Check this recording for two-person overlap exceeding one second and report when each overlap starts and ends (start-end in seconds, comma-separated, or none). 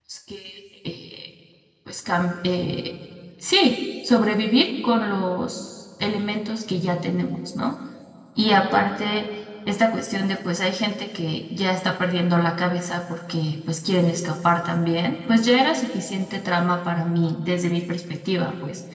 none